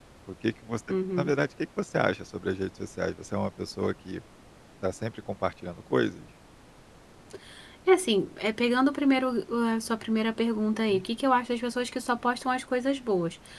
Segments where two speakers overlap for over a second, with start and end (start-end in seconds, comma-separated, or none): none